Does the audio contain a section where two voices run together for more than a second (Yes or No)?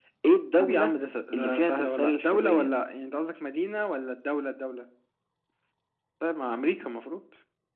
Yes